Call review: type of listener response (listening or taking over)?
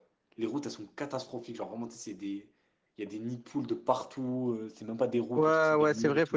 taking over